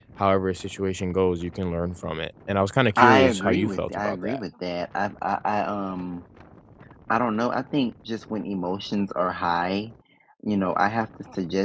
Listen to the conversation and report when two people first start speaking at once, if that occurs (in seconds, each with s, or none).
3.0 s